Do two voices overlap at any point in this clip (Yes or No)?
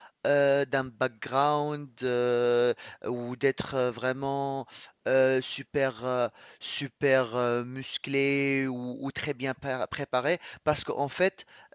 No